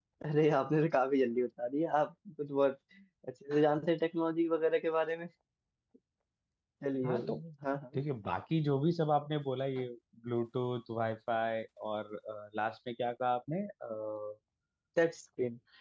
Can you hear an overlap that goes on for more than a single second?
No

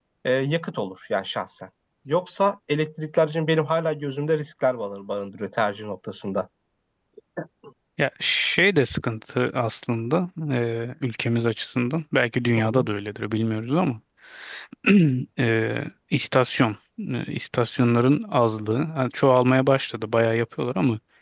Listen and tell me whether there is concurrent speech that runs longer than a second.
No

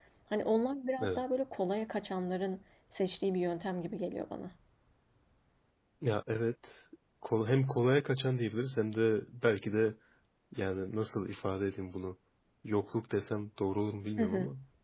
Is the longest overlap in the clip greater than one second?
No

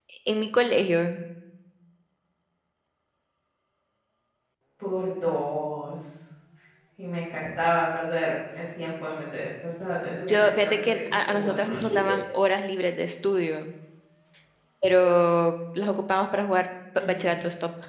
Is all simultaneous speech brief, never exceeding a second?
No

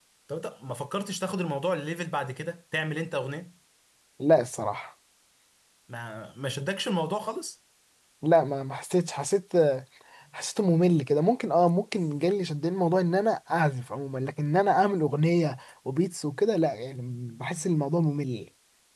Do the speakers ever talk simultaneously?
No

